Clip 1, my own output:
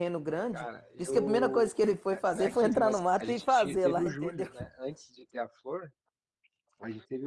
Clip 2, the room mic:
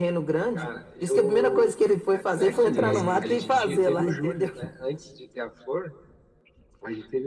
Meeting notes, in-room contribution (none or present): present